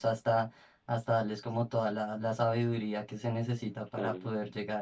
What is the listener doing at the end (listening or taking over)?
listening